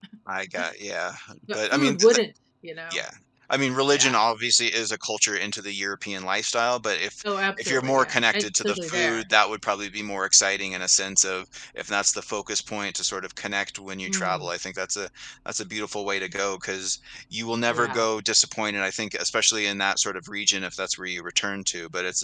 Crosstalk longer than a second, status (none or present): present